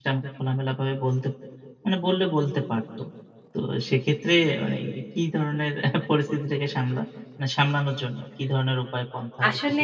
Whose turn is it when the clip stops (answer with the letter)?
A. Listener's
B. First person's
A